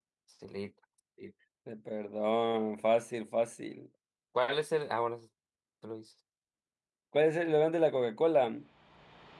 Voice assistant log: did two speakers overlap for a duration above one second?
No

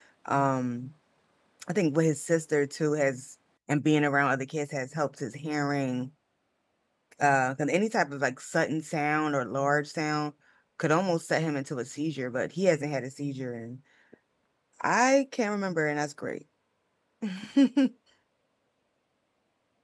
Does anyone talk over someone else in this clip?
No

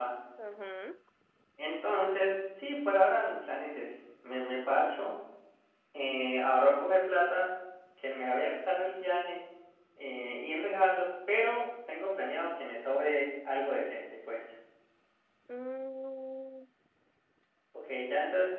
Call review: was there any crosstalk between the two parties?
No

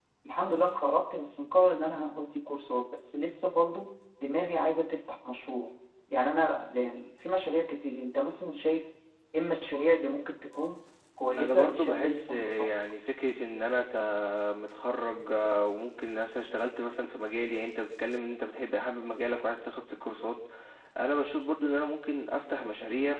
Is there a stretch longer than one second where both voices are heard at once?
Yes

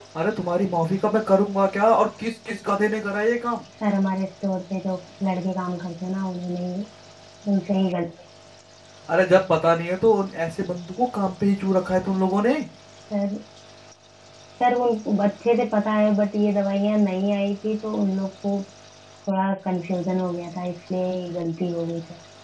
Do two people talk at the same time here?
No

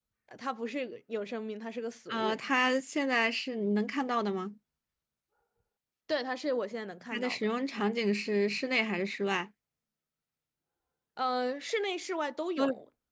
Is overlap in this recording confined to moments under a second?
Yes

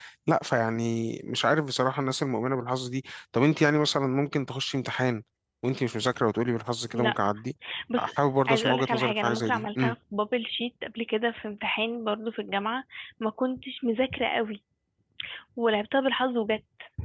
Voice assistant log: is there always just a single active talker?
No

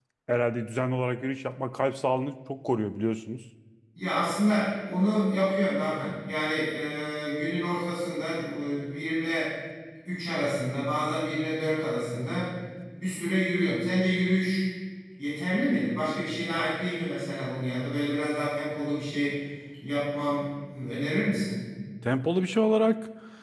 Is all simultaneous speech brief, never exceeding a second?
Yes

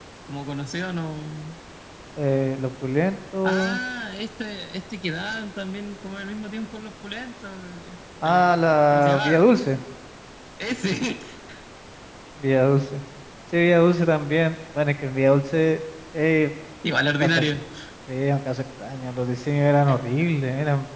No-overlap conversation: No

